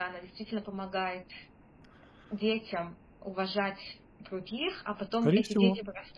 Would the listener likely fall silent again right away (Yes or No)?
Yes